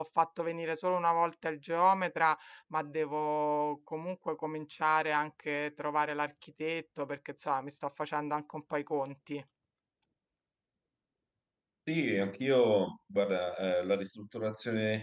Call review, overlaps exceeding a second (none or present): none